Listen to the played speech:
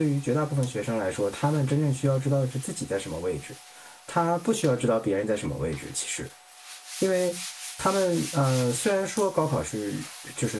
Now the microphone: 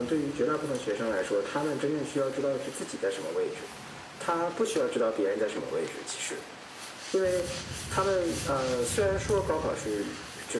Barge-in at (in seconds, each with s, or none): none